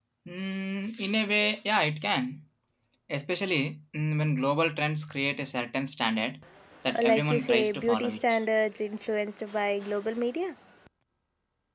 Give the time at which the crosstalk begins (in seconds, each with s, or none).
6.9 s